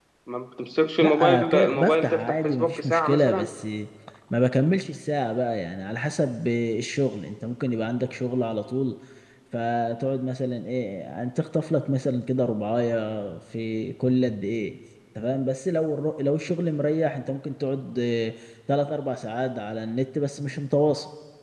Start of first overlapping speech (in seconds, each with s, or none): 1.0 s